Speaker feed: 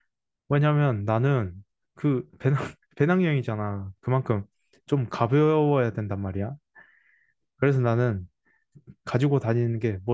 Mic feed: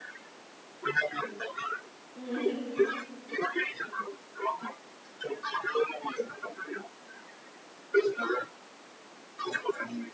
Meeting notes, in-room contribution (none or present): present